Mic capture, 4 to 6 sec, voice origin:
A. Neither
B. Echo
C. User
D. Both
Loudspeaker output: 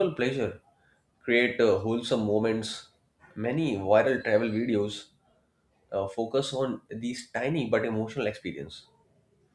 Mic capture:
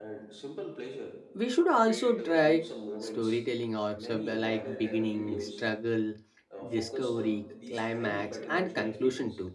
D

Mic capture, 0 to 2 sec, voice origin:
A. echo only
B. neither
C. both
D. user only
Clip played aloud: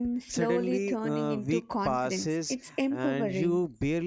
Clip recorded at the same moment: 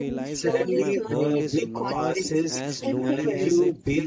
C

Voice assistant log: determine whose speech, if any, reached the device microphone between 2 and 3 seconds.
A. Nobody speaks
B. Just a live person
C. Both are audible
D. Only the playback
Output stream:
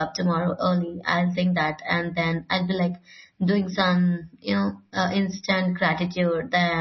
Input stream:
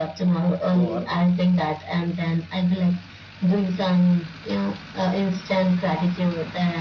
D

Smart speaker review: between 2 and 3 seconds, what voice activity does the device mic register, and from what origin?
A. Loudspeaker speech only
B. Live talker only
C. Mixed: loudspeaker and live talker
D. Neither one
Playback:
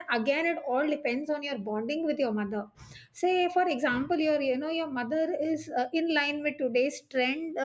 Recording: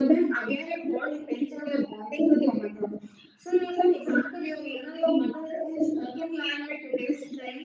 A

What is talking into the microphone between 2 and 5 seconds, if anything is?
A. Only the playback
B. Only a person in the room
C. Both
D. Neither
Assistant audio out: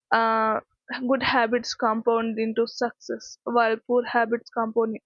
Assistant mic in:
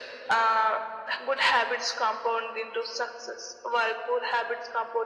A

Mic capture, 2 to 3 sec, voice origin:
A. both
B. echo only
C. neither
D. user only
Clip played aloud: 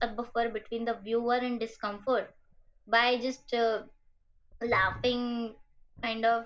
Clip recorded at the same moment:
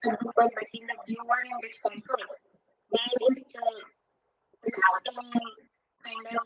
B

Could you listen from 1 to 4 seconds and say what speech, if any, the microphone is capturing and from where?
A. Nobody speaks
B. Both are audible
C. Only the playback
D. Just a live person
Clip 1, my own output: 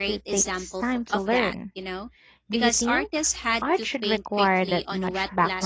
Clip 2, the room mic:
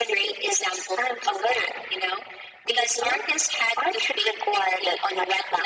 C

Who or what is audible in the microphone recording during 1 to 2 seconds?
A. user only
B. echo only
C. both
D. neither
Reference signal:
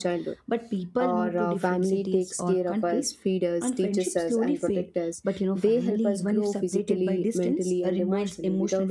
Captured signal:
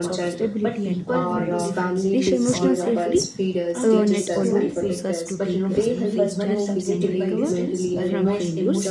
C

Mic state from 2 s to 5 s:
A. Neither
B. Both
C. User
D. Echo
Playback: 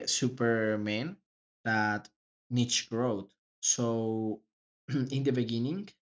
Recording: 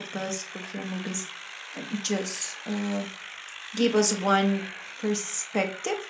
C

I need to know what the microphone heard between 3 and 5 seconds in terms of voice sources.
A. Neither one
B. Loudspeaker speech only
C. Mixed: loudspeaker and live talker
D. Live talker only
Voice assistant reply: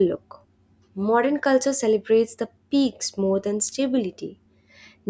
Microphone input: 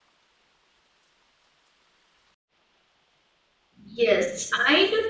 D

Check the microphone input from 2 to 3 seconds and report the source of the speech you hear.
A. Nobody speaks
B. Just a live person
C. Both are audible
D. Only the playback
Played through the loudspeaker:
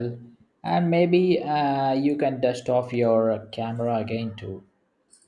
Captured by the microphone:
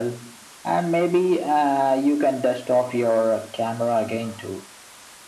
D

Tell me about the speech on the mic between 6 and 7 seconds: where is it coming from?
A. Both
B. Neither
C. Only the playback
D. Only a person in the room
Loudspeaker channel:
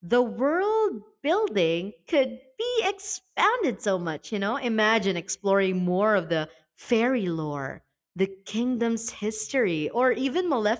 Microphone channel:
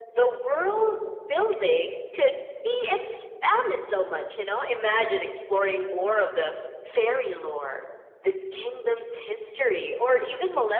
C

